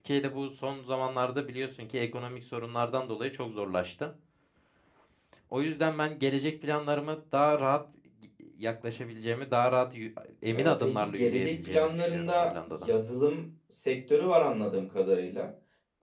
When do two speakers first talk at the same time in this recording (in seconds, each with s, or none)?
10.5 s